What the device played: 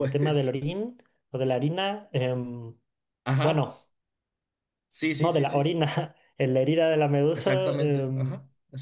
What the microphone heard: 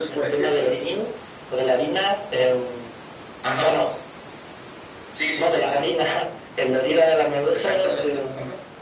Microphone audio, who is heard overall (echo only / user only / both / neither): echo only